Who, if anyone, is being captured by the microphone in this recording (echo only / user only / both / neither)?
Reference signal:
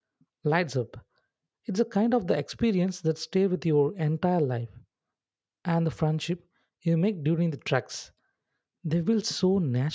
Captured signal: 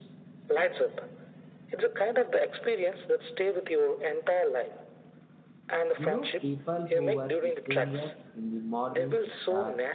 both